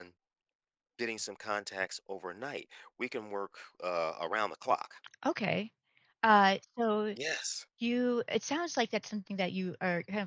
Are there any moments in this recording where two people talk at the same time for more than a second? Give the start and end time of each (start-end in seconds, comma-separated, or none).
none